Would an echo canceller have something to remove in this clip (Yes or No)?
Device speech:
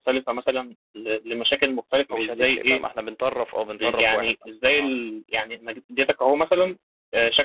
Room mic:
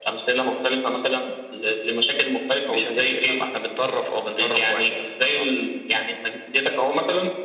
Yes